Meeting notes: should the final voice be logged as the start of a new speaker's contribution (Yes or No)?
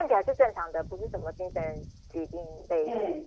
Yes